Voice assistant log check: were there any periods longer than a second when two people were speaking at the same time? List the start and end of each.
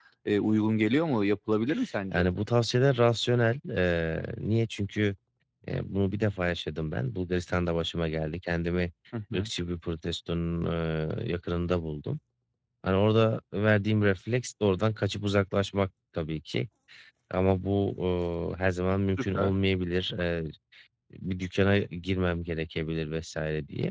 none

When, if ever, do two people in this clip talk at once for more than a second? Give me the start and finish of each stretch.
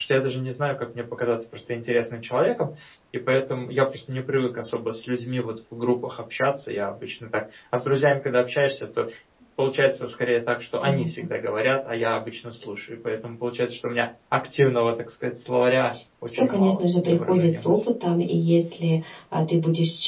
16.3-17.8

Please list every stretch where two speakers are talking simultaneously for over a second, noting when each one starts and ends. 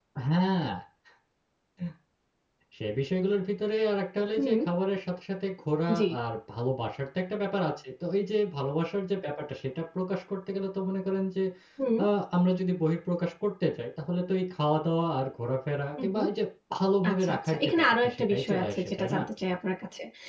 17.1-19.2

